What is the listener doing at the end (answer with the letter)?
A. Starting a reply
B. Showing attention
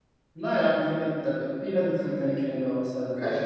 A